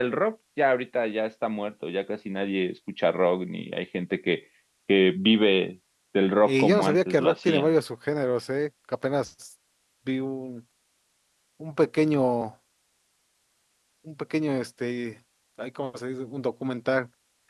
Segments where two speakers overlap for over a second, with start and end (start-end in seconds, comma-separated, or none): 6.5-7.7